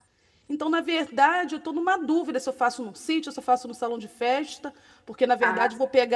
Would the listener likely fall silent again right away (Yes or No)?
Yes